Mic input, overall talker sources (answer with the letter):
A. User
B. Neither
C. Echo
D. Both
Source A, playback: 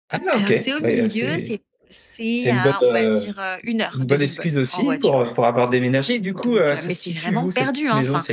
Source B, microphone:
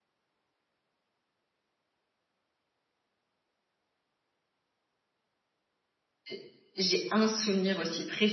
A